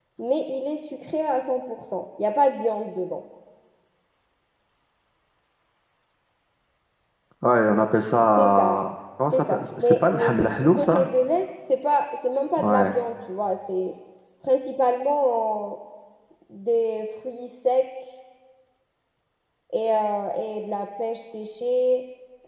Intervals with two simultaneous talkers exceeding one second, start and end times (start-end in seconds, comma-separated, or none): 9.3-11.1